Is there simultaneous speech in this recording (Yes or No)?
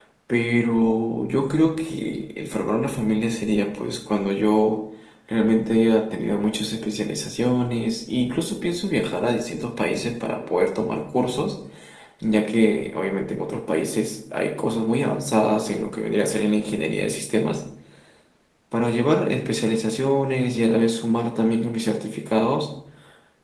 No